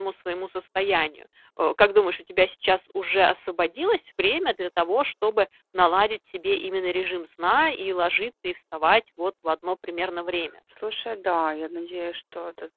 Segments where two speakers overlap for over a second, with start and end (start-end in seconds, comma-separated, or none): none